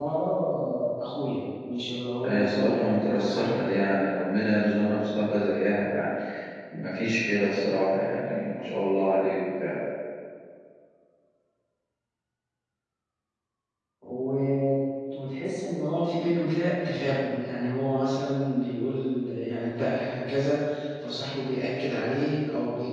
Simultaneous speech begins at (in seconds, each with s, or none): 2.2 s